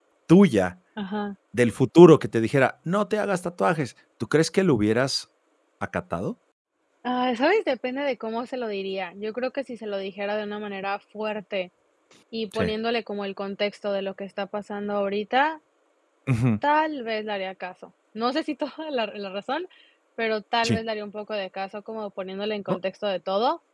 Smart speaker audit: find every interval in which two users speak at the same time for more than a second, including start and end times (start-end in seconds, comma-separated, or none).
none